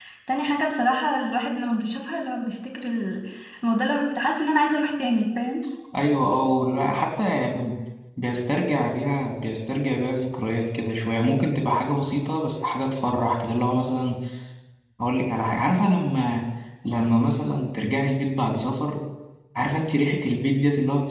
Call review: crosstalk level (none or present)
none